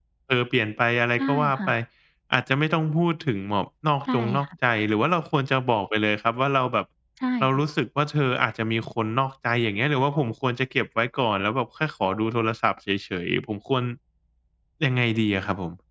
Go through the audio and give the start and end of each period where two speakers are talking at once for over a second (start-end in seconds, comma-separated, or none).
none